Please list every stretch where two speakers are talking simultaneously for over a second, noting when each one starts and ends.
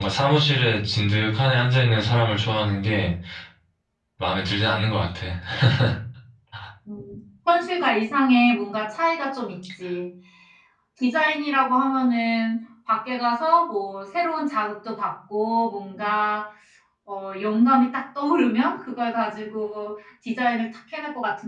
none

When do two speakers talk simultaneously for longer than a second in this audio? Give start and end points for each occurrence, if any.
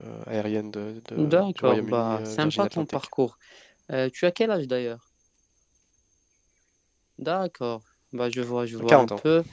1.2-3.0

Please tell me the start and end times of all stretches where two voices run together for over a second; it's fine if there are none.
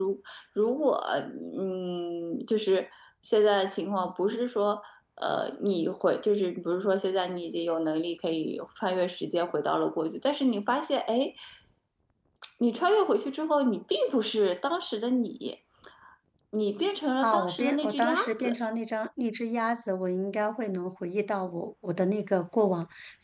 17.2-18.6

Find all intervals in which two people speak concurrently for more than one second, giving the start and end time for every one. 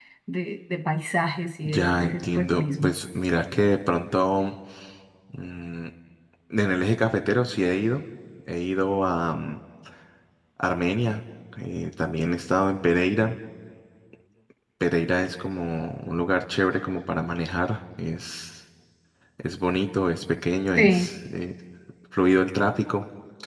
1.6-2.9

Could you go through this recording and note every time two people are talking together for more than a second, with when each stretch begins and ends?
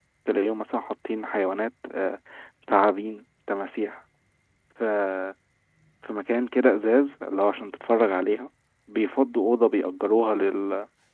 none

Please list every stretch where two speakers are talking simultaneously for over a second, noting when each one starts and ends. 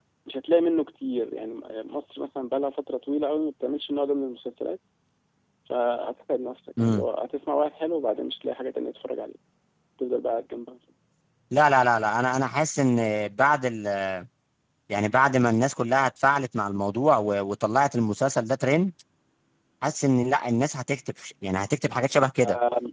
none

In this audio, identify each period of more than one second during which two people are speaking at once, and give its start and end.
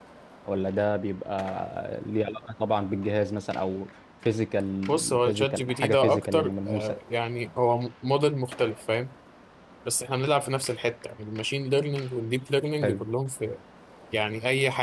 4.9-7.0

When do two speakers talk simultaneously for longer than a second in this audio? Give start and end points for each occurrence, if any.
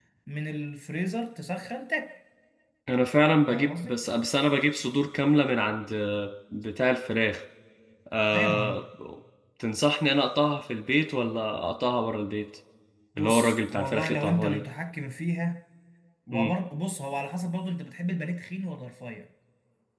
13.2-14.6

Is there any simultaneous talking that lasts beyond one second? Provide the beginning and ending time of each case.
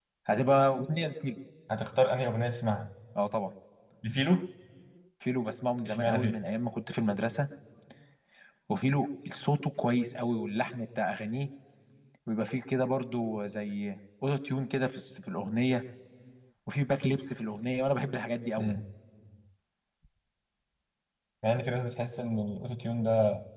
none

